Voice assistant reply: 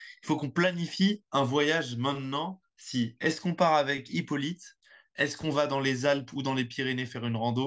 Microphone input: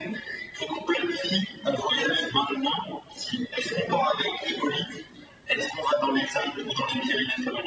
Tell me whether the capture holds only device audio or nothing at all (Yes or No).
Yes